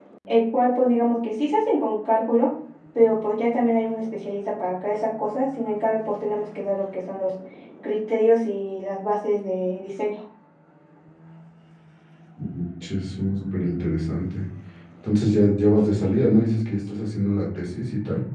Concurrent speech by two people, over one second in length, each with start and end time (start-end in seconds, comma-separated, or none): none